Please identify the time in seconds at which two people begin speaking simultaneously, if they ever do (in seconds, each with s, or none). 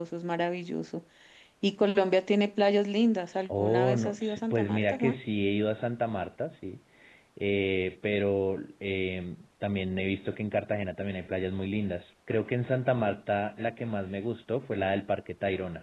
3.4 s